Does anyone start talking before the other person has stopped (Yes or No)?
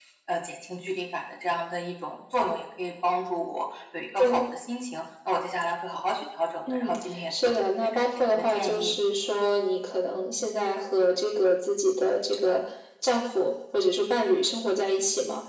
Yes